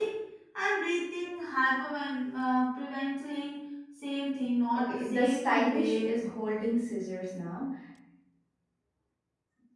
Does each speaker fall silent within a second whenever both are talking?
No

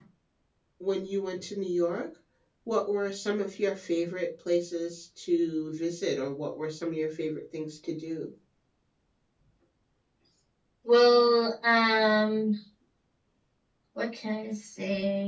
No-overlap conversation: Yes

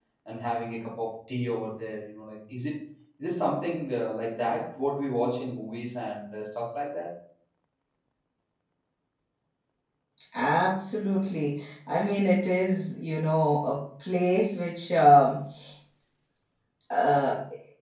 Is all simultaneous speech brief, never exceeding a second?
Yes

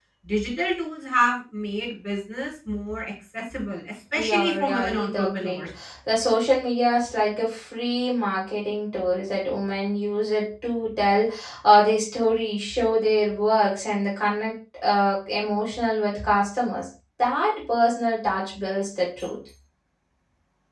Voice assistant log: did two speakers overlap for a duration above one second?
Yes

